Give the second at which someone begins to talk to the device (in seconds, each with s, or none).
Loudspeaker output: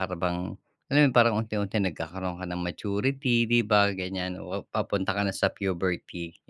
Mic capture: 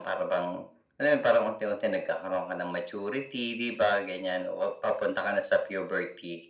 none